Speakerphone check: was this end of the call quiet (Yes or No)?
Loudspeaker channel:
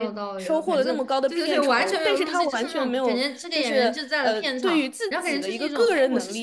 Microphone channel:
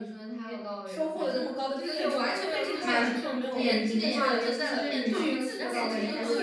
No